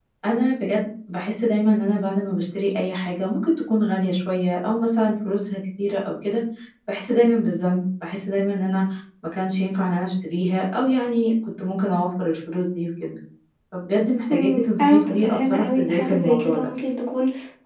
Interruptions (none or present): present